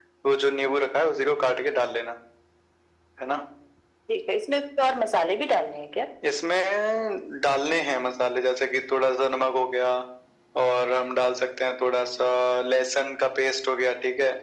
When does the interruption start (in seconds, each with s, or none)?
none